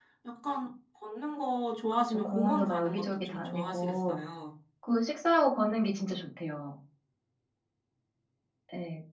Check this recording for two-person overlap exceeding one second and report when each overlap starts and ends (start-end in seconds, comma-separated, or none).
2.1-4.1